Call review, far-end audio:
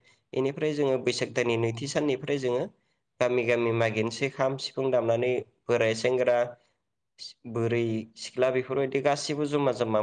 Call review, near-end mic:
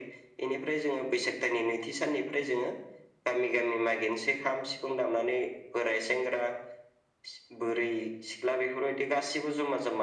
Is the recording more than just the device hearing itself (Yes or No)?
No